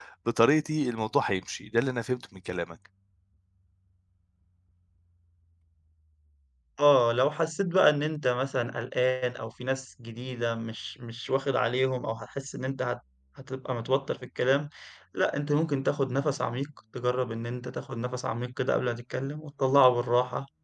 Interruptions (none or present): none